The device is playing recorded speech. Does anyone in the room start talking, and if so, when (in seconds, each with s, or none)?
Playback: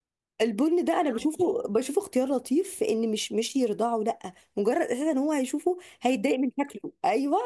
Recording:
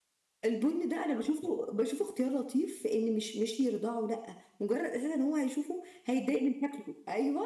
none